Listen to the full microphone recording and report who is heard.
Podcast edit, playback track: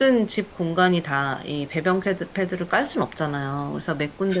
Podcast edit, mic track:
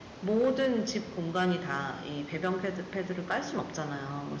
echo only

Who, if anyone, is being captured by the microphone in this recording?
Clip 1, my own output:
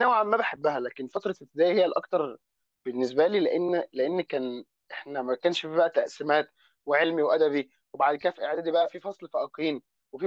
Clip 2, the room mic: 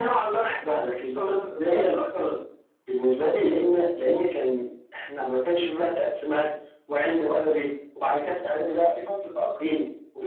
both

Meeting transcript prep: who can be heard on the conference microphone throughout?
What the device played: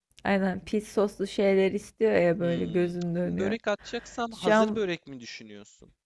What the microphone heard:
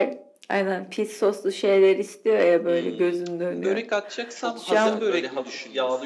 both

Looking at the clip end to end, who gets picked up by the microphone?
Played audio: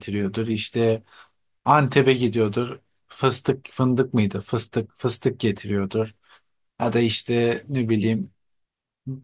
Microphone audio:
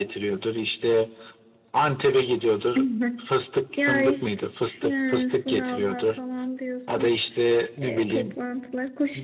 both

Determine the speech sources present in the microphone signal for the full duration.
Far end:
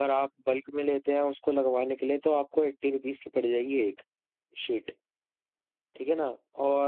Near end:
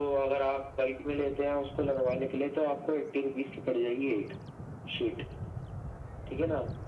echo only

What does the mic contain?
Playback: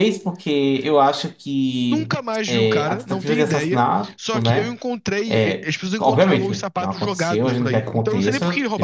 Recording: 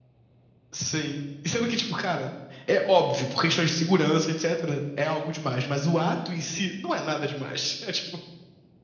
user only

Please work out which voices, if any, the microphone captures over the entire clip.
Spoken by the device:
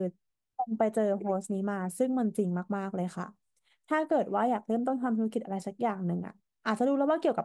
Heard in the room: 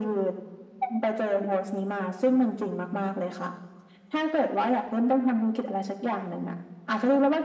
echo only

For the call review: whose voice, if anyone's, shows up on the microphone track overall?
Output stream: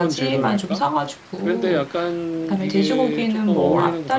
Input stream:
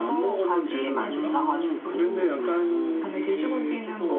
both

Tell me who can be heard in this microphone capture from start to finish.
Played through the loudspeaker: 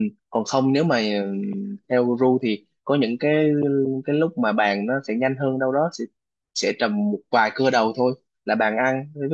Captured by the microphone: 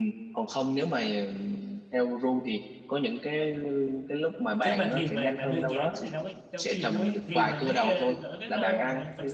both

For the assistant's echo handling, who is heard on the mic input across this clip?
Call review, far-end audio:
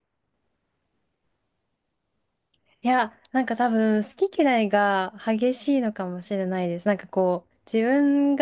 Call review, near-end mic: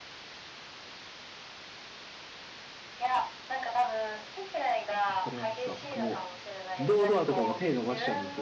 both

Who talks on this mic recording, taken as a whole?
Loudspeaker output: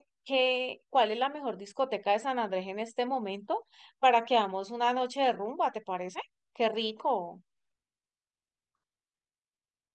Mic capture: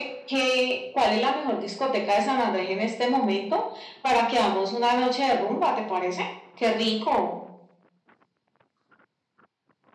echo only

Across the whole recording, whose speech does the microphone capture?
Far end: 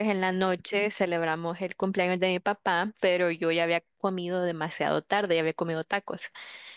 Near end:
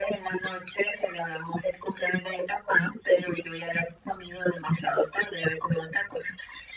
echo only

